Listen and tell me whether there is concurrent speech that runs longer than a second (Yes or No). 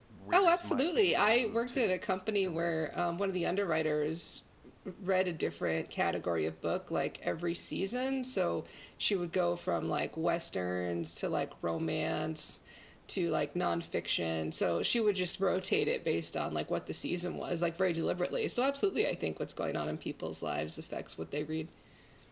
Yes